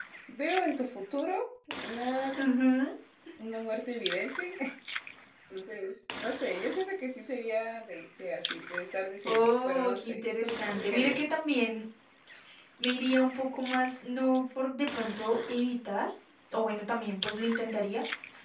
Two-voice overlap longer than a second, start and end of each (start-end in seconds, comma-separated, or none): 9.2-11.2